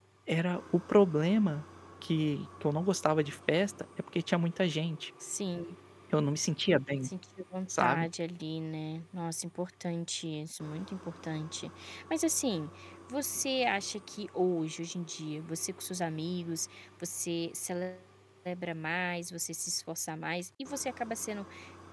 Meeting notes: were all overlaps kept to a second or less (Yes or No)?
Yes